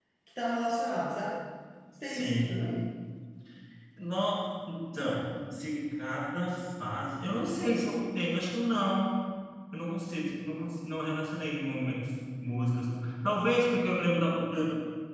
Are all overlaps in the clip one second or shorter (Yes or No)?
Yes